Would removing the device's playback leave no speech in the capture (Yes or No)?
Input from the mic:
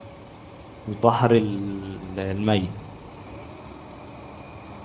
No